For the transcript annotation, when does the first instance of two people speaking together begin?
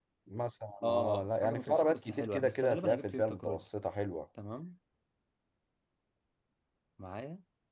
1 s

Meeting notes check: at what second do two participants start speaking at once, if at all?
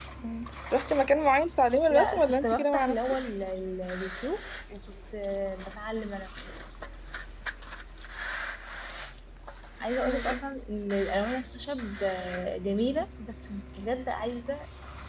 2 s

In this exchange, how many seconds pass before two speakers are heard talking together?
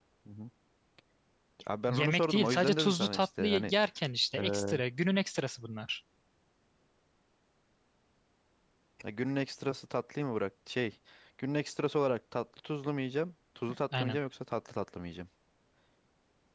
2 s

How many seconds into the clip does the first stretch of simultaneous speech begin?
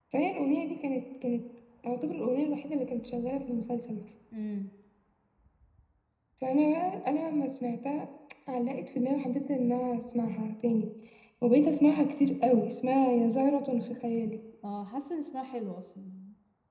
none

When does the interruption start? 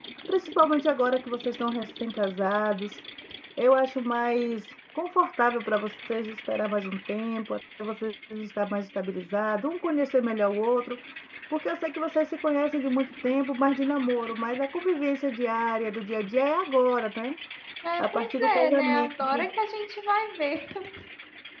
18 s

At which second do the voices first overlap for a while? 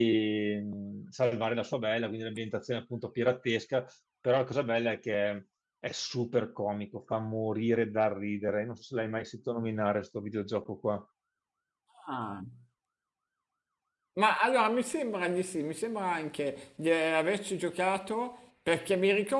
none

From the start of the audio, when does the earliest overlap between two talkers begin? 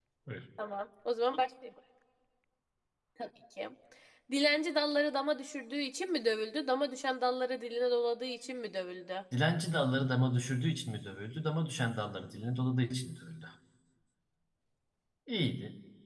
none

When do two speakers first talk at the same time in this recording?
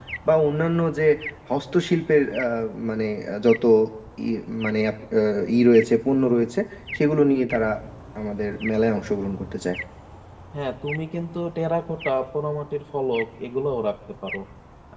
none

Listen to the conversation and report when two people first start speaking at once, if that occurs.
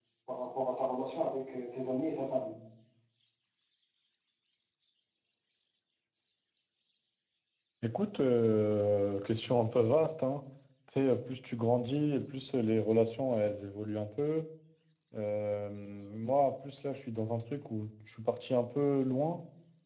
none

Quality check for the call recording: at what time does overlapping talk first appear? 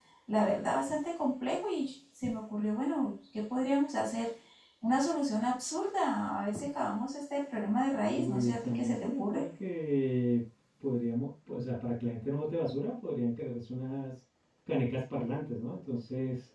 8 s

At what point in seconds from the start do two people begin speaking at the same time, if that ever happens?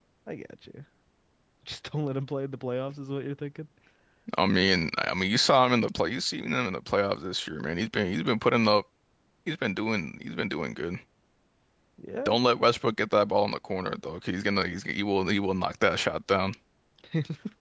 none

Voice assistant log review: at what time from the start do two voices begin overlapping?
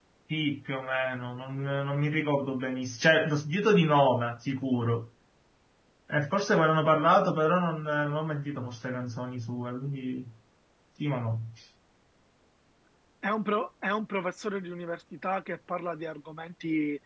none

